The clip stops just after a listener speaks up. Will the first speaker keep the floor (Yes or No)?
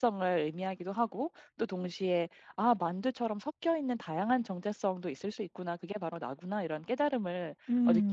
Yes